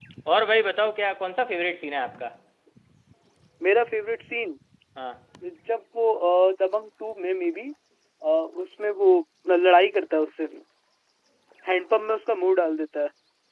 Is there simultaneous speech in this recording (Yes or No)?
No